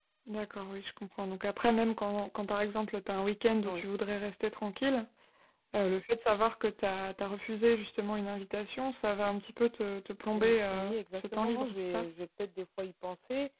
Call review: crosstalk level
present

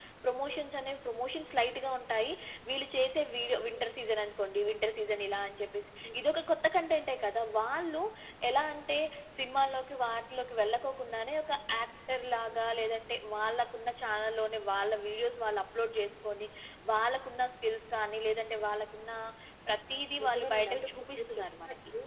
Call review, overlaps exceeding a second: present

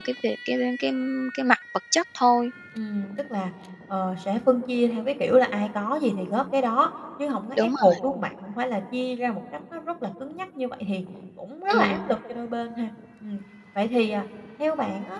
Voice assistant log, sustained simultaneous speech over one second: none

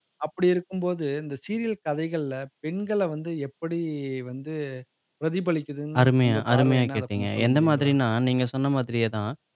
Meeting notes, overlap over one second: present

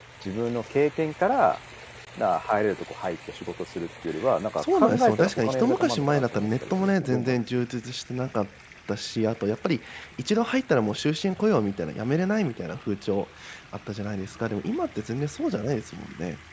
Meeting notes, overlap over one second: present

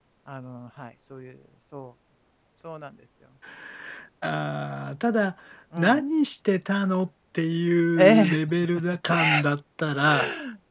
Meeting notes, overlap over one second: none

